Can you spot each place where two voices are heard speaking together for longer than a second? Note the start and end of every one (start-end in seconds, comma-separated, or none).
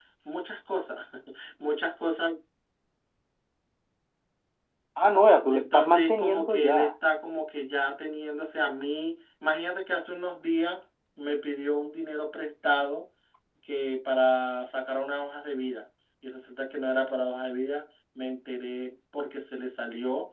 5.5-6.9